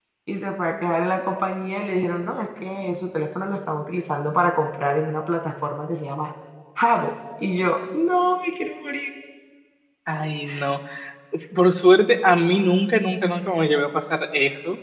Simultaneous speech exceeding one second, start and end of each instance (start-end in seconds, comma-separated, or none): none